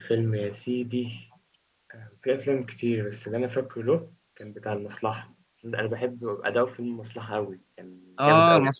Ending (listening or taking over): taking over